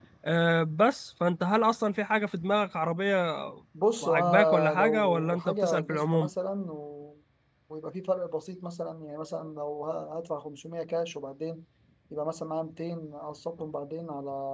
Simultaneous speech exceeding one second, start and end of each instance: 4.0-6.3

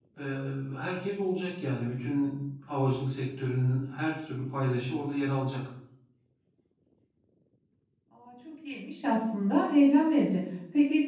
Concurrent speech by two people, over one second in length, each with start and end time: none

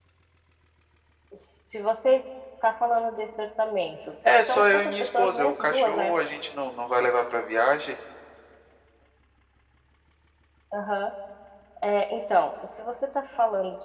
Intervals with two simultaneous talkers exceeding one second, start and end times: 4.4-6.2

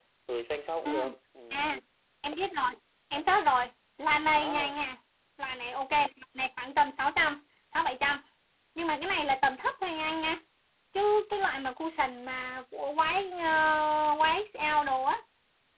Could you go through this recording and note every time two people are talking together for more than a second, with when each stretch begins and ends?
none

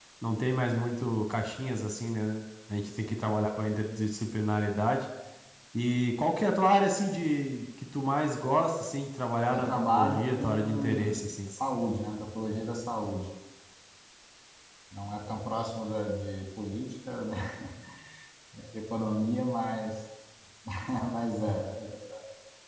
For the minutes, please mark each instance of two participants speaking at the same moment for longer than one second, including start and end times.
9.5-11.5

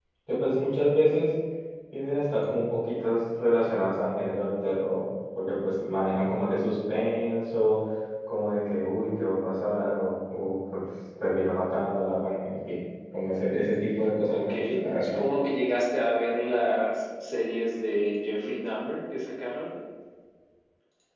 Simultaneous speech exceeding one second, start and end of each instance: none

